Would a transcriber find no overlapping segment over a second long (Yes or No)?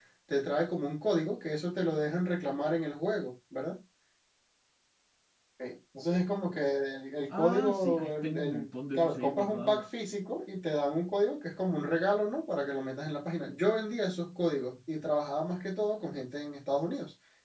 No